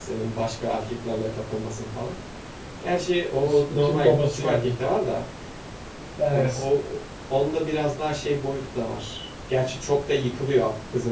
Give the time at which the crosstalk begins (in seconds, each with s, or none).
3.4 s